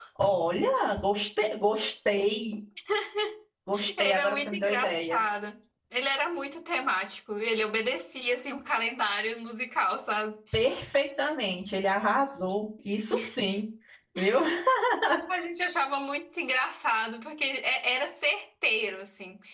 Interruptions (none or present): present